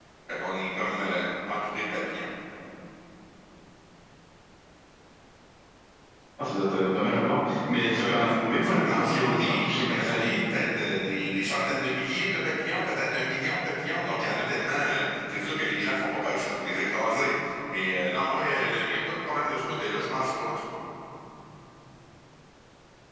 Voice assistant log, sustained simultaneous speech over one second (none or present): present